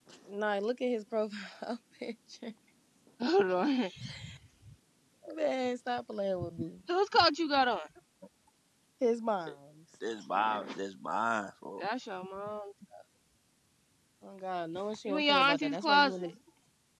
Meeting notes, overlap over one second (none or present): present